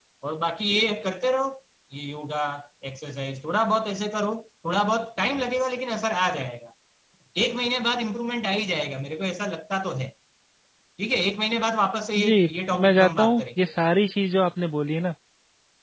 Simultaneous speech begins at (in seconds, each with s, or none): 12.2 s